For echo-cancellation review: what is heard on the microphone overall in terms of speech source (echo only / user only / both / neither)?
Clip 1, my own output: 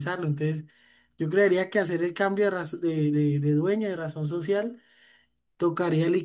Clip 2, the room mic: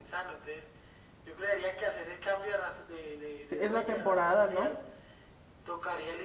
both